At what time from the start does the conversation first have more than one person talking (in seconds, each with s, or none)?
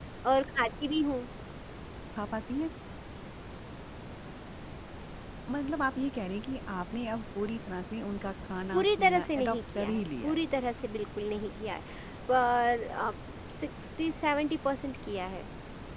8.7 s